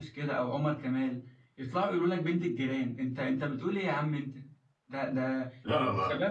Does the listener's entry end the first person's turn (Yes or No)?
No